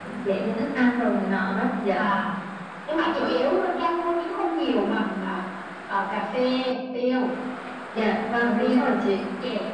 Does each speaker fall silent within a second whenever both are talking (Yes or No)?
Yes